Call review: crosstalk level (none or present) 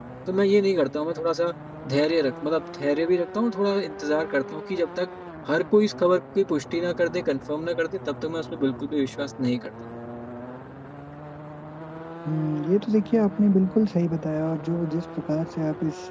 none